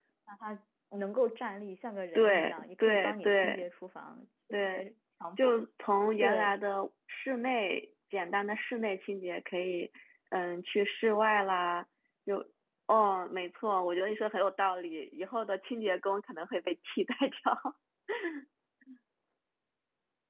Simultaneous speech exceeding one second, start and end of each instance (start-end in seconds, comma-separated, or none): 2.2-3.6